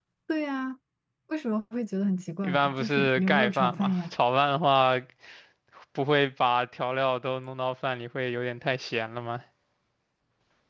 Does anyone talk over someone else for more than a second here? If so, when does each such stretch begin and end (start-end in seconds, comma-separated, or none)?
2.4-4.0